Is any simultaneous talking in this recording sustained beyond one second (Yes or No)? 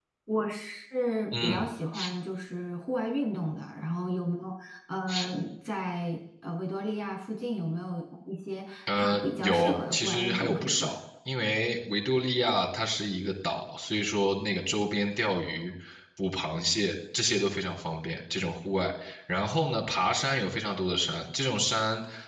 Yes